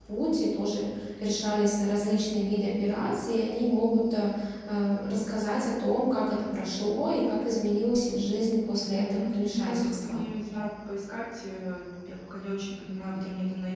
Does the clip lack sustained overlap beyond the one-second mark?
No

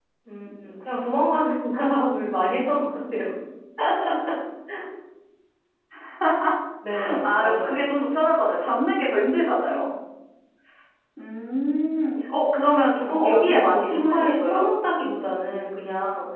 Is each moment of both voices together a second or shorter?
No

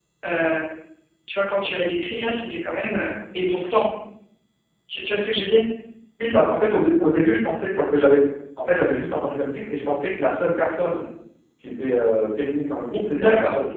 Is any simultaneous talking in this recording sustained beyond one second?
No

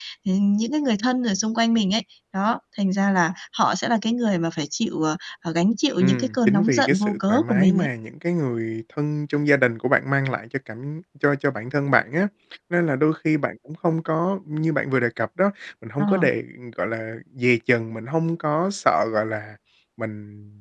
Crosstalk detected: Yes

